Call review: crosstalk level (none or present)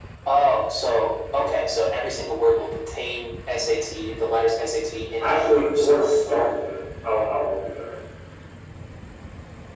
present